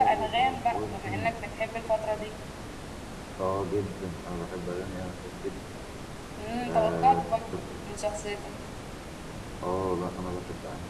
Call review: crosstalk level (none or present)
present